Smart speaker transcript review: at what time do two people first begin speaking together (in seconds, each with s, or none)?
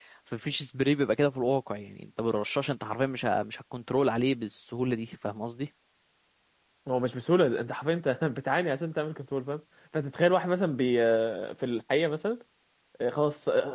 none